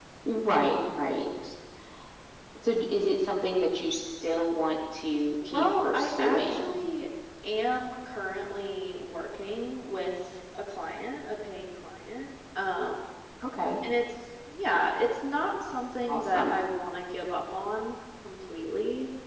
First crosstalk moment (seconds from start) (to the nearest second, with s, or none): 5 s